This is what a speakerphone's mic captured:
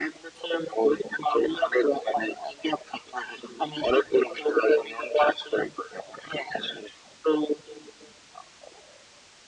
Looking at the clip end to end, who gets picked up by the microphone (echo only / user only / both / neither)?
echo only